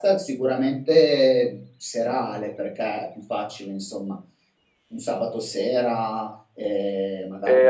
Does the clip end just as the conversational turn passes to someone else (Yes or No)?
Yes